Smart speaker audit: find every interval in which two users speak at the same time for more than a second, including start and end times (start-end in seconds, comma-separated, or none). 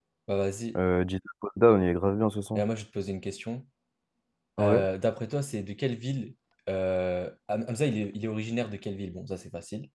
none